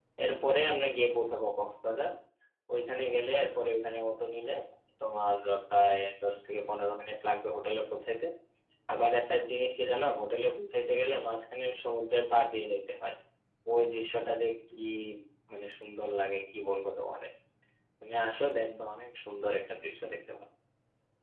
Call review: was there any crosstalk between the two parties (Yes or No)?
No